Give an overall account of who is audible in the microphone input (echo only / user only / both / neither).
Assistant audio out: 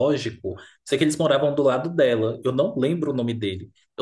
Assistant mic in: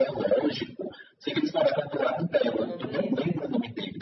both